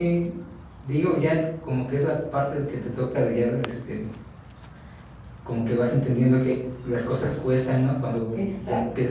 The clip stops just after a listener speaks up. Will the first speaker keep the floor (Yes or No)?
Yes